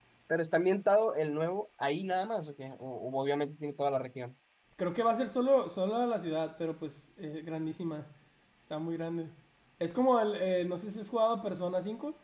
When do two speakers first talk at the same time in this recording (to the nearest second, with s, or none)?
none